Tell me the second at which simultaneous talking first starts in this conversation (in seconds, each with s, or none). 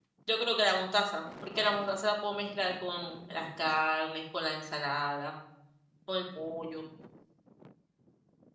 none